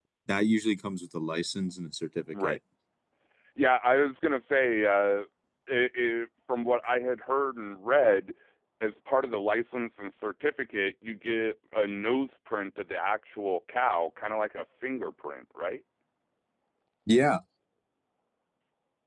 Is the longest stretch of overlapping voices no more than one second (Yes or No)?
Yes